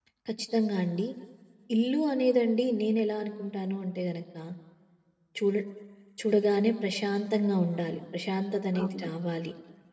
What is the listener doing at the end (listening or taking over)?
listening